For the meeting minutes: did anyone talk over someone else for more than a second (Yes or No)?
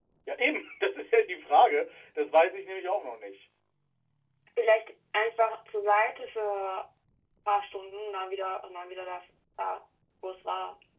No